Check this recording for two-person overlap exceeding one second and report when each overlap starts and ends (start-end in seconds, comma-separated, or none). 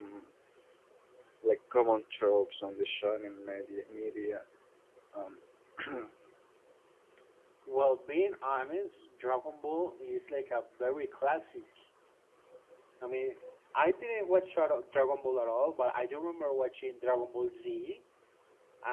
none